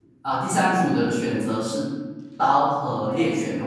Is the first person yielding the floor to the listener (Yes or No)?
No